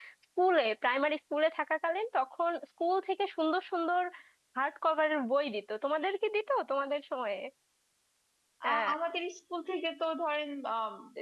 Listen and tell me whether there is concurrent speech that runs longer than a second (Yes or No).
No